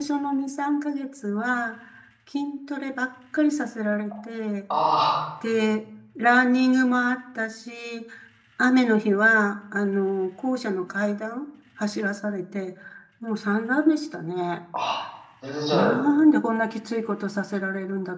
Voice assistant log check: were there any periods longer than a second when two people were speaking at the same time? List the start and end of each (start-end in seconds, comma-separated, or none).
none